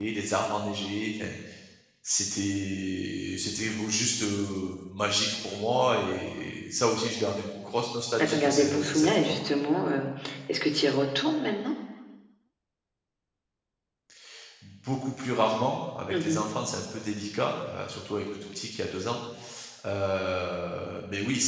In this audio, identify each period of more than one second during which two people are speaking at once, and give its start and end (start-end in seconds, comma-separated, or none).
8.2-9.5